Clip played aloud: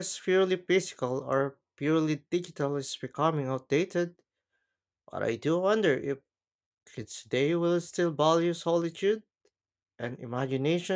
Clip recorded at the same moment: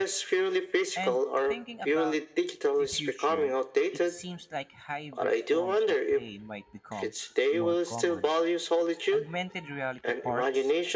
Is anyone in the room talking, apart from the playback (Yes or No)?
Yes